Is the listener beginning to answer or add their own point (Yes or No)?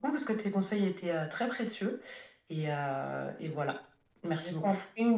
Yes